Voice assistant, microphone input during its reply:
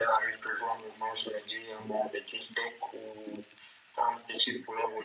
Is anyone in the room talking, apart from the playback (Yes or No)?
No